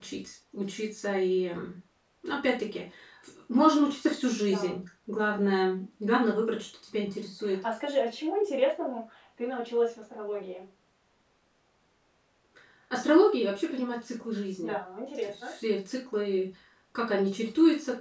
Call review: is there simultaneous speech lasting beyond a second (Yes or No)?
No